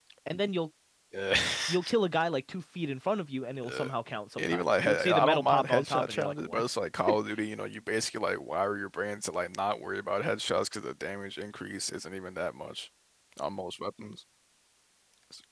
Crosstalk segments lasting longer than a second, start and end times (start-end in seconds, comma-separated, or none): 4.4-6.7